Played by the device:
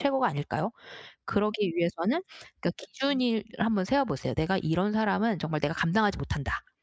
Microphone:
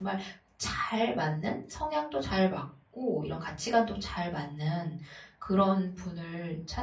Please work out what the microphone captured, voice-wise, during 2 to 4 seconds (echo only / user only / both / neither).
user only